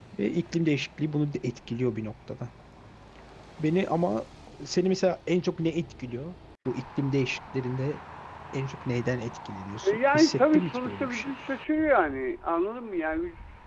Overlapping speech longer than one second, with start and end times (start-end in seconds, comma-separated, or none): 9.8-11.3